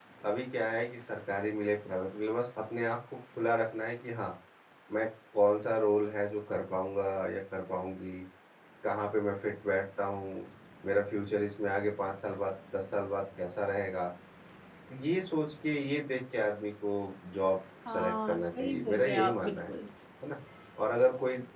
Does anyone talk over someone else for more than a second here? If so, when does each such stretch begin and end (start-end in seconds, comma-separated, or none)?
17.9-19.7